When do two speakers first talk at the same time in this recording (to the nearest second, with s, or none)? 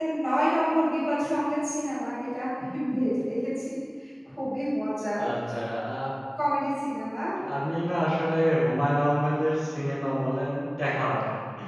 none